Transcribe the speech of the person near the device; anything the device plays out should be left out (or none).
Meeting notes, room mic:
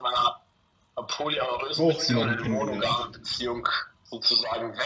auch jemanden kennengelernt.